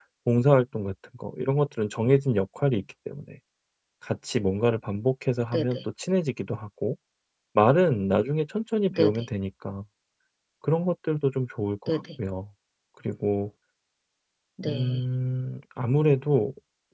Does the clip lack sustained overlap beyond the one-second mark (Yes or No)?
Yes